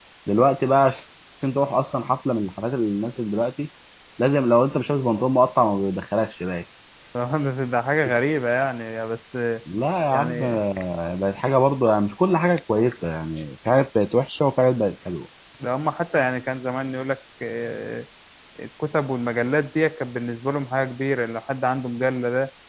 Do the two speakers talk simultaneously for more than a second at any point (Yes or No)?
No